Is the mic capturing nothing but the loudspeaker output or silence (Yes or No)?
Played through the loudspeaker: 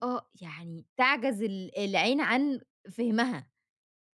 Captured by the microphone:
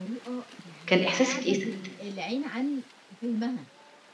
No